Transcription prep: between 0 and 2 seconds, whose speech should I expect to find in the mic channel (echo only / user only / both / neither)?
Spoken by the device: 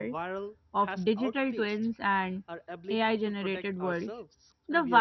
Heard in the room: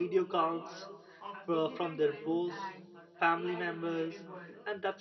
both